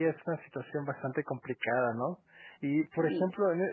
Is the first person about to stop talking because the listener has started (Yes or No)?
No